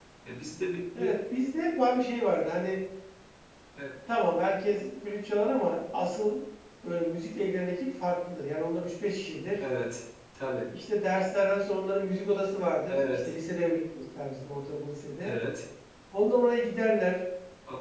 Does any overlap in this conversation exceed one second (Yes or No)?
No